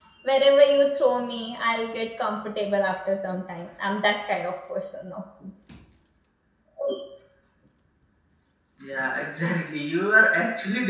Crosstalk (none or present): none